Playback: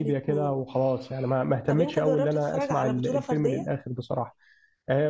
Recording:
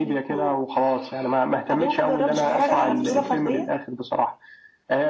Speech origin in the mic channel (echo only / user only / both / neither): both